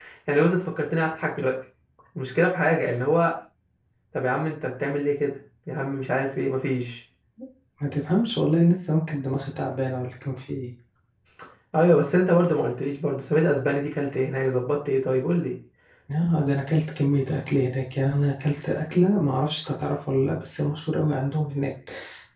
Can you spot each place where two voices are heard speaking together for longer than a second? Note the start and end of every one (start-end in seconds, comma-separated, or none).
none